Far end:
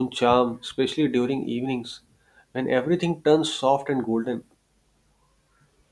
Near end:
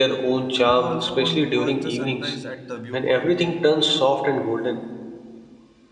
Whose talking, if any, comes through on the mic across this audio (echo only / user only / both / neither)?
both